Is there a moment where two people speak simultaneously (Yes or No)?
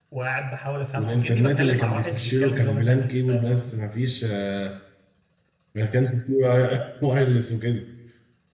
Yes